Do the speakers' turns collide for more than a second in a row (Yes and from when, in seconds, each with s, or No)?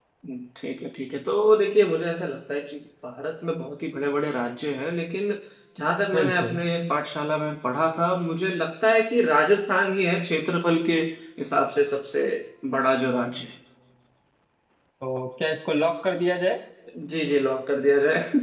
No